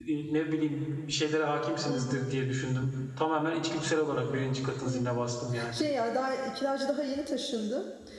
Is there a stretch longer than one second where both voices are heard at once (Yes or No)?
No